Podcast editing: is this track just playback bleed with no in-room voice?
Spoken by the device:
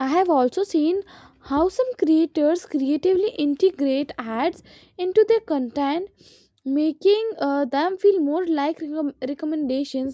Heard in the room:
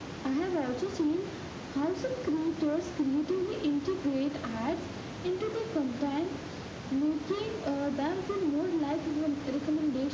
Yes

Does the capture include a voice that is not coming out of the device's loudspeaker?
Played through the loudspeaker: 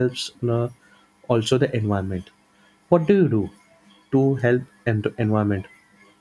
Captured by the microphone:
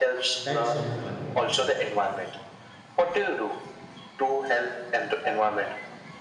Yes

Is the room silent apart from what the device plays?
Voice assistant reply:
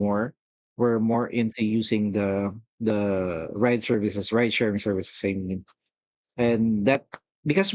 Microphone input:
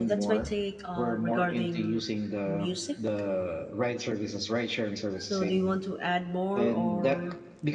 No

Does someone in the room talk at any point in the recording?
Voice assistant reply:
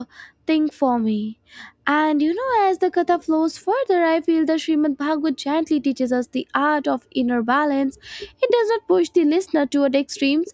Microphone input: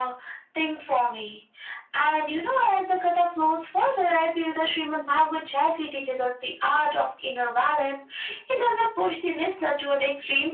No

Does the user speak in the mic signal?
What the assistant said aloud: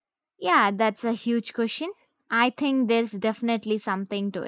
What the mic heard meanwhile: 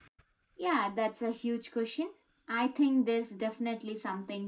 No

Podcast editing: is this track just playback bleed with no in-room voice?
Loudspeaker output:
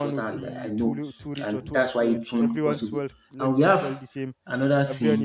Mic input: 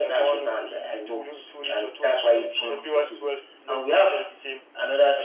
Yes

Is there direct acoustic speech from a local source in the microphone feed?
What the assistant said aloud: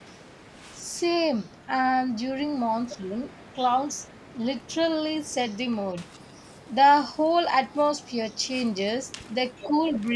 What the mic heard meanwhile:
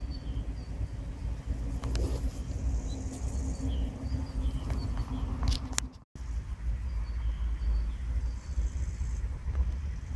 No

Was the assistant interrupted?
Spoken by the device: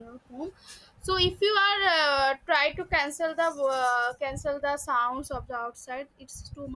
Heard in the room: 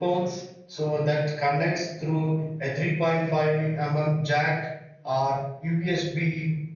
Yes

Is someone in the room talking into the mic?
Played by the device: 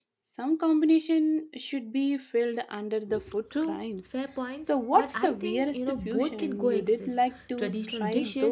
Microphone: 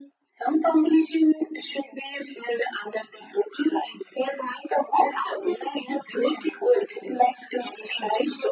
No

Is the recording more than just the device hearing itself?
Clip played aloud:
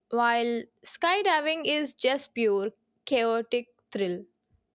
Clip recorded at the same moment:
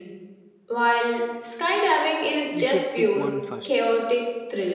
Yes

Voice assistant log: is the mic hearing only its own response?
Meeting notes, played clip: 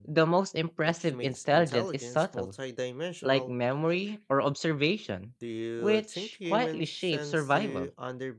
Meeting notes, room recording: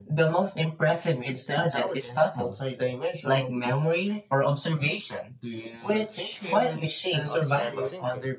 No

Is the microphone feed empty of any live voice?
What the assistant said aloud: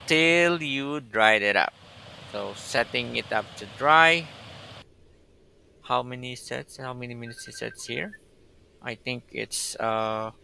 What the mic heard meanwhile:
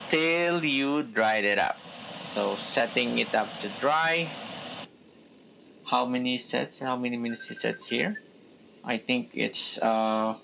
Yes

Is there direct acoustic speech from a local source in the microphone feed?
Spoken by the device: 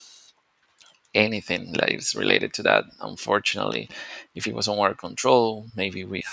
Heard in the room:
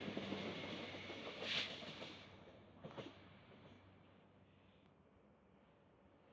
No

